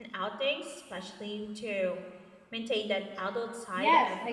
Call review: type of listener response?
taking over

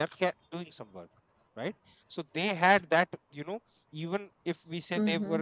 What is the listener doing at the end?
listening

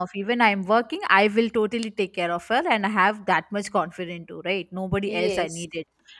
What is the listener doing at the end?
listening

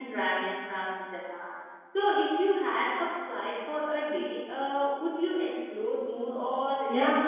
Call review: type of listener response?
taking over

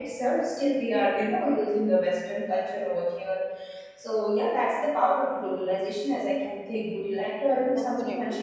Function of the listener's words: taking over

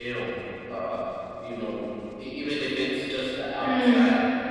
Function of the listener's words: taking over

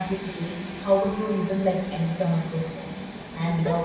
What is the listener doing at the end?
listening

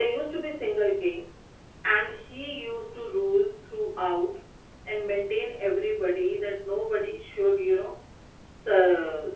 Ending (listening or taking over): listening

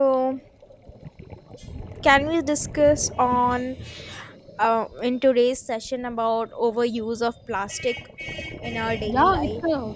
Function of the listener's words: taking over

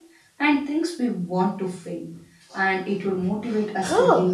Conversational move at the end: taking over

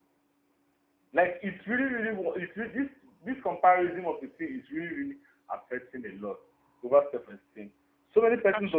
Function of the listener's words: listening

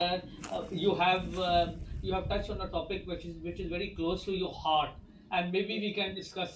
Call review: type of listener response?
listening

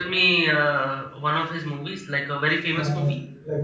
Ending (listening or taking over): taking over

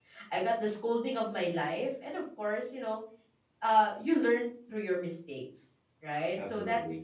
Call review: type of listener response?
listening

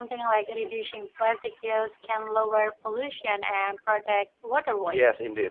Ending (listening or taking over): taking over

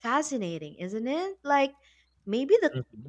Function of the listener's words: listening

